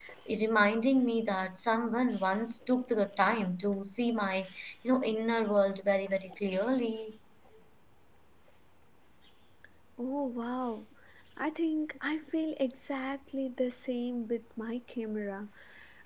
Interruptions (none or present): none